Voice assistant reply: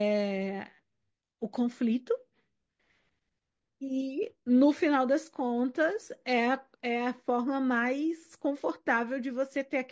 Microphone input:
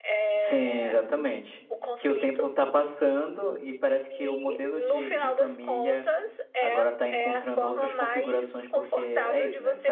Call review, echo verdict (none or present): present